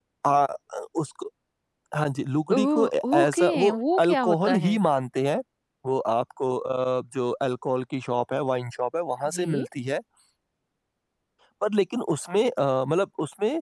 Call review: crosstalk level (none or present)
present